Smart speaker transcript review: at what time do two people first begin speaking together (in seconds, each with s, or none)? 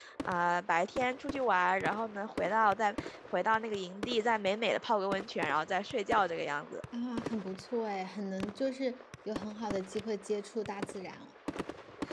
none